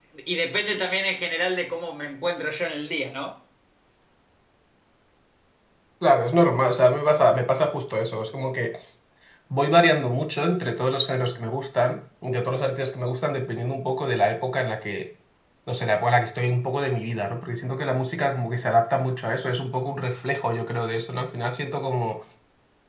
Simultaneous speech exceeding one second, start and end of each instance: none

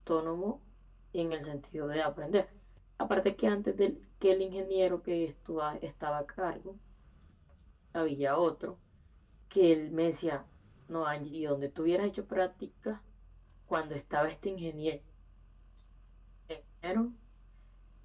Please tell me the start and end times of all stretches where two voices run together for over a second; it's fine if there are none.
none

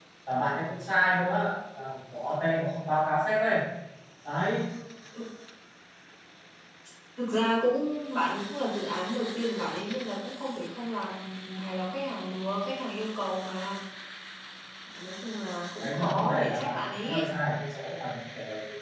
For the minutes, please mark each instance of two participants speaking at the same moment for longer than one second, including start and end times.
15.8-17.3

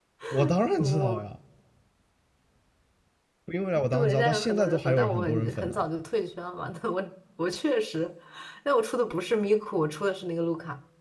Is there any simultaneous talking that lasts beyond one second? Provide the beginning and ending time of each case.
3.9-5.9

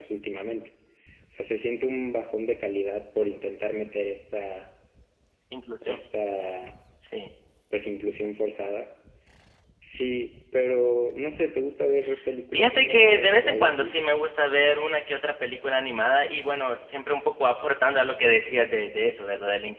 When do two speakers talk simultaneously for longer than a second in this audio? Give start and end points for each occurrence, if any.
12.5-14.0

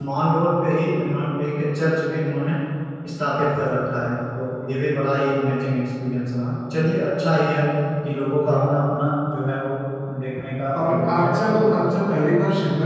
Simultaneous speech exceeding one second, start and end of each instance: 10.8-12.0

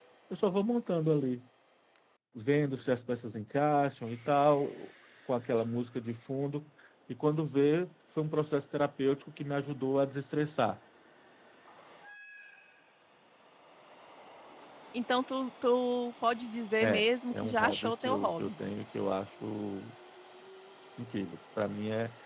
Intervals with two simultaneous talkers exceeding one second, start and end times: 16.8-18.5

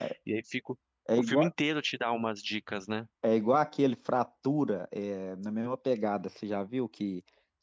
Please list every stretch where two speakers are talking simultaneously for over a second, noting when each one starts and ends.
none

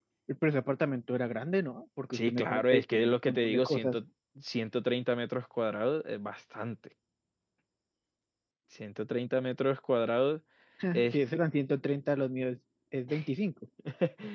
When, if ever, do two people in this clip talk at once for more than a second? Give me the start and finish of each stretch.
2.1-3.9

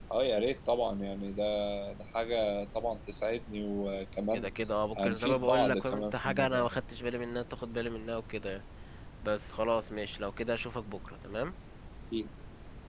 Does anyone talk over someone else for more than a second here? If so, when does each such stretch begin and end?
5.0-6.8

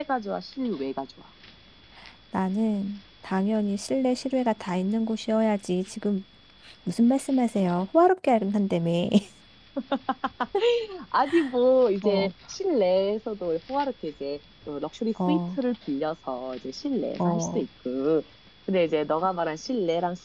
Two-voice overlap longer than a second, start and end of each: none

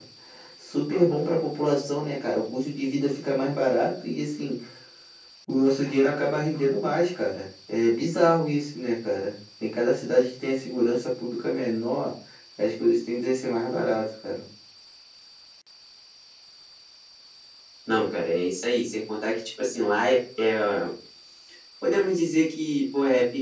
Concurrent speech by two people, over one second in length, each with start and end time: none

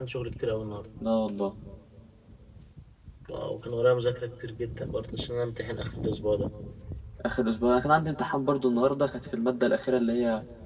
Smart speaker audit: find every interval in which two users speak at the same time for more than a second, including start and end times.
none

